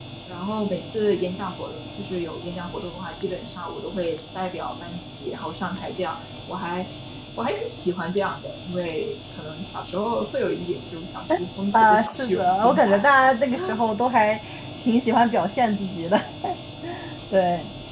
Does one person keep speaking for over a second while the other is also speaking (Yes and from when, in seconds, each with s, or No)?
Yes, from 11.7 s